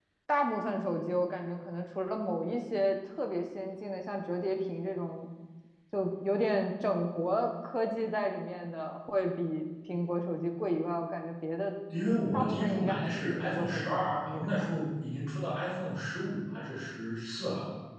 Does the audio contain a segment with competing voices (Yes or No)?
Yes